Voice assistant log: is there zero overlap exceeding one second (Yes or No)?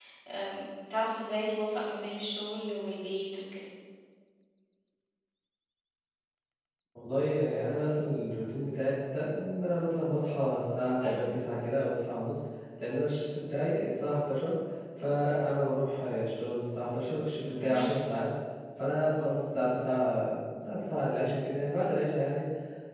Yes